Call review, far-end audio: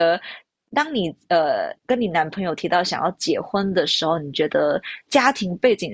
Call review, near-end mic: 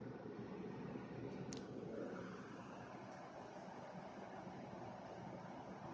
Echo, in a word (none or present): none